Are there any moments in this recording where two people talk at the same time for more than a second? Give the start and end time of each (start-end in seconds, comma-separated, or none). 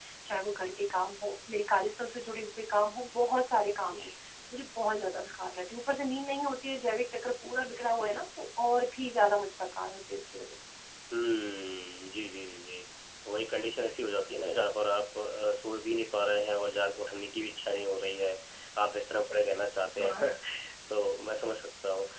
none